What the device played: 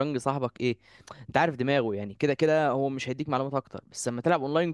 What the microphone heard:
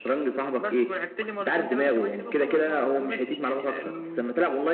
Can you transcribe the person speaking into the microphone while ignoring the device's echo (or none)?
بس ولعبت لي مرتين ثلاثه كمان كده وخلاص ما كملتش يعني لانه